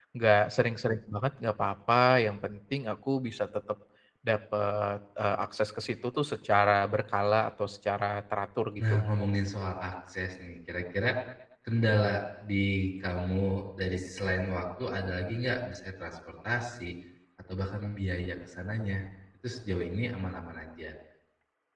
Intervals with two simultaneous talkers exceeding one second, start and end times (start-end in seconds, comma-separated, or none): none